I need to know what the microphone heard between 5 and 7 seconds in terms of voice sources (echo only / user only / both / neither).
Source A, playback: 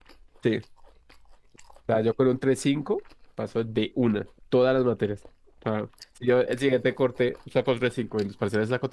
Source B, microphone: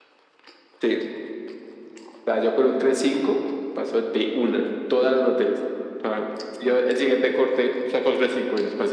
echo only